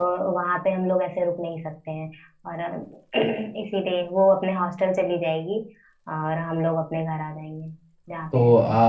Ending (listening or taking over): taking over